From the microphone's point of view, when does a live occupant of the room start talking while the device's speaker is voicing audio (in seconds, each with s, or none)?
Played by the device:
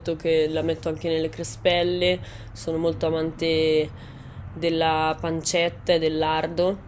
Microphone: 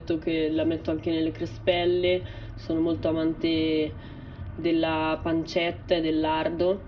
none